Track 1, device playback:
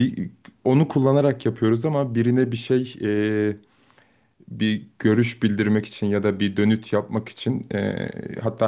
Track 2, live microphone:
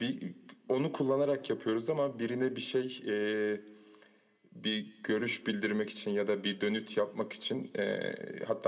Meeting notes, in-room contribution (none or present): none